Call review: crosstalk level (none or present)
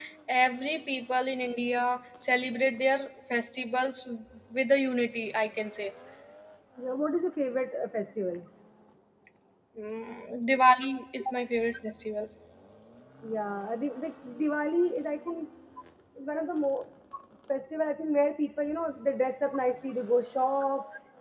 none